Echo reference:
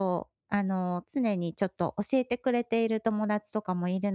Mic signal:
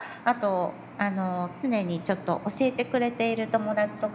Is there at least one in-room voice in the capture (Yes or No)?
No